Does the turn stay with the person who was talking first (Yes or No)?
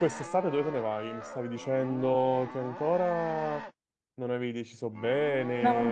Yes